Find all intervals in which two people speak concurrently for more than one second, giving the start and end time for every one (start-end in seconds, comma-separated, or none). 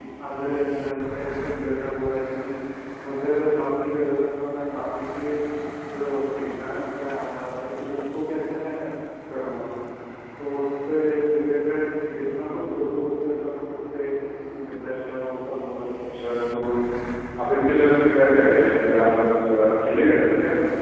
none